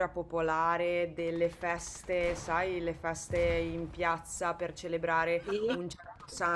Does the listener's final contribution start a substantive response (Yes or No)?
No